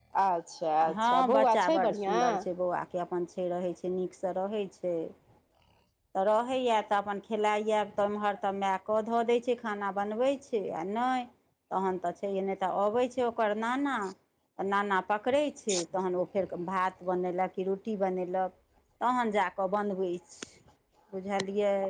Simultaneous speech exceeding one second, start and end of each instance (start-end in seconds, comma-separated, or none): 0.9-2.3